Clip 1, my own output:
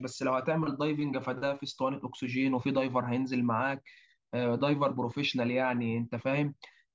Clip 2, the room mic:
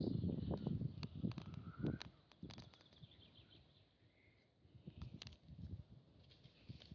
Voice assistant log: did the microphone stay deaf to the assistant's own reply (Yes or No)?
Yes